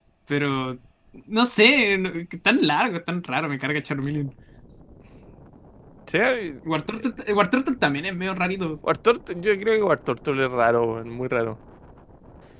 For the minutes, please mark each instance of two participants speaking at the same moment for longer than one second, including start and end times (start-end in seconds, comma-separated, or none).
none